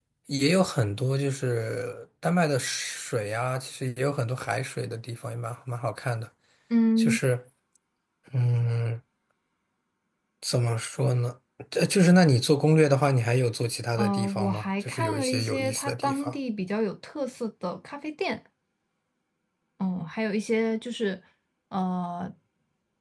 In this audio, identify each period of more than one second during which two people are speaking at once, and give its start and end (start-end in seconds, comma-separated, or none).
14.0-16.3